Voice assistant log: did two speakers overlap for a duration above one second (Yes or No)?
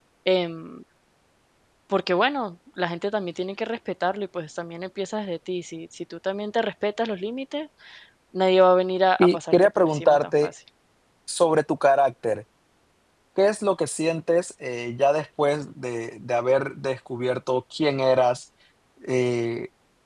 Yes